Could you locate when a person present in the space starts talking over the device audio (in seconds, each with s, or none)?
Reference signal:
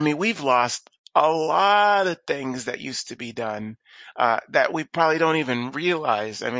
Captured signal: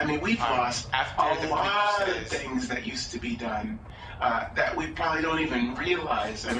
0.4 s